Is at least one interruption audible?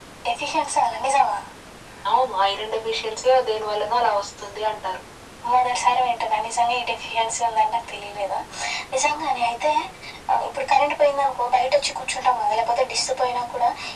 No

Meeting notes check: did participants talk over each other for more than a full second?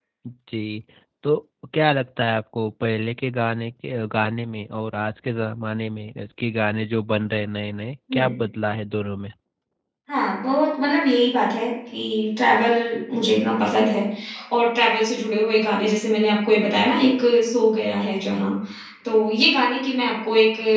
No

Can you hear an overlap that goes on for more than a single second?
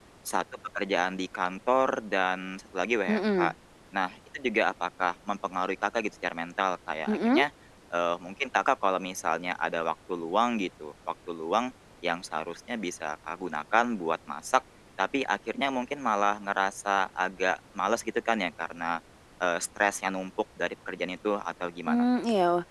No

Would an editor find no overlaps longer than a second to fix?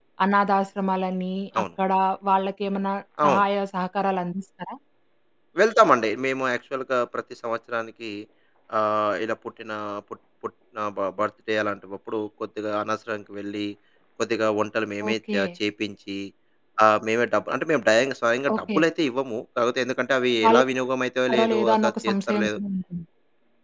No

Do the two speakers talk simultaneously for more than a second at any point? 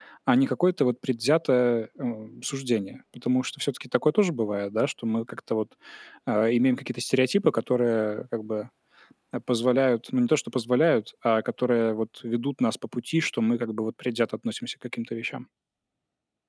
No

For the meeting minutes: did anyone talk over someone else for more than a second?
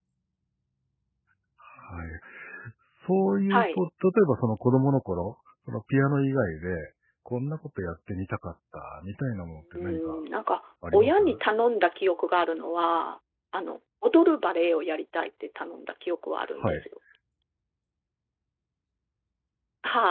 No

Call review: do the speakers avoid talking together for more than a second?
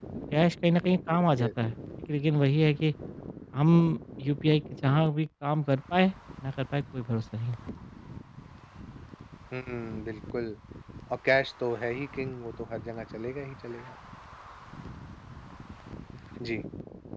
Yes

